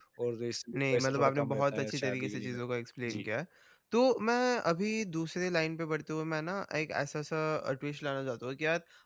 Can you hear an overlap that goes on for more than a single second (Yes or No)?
Yes